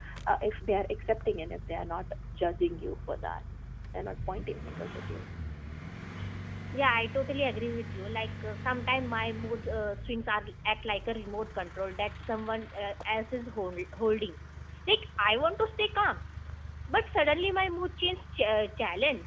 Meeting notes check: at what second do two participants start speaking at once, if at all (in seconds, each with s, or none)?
none